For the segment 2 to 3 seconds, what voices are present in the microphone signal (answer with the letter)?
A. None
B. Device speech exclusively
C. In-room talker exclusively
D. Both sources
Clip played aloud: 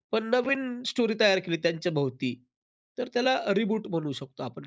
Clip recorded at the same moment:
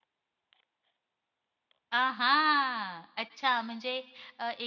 C